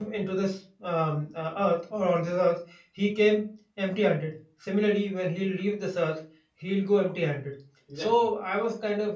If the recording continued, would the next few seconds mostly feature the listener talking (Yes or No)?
No